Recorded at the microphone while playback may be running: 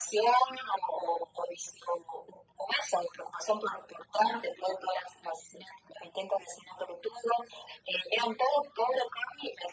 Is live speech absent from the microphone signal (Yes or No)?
Yes